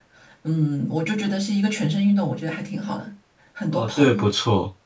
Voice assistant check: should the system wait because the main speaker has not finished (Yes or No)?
No